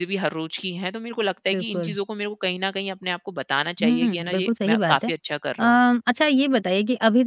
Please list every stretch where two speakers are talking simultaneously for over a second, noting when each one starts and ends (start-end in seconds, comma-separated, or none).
3.8-5.1